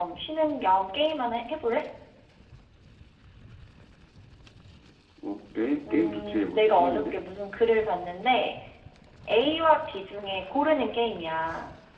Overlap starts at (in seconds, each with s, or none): 5.9 s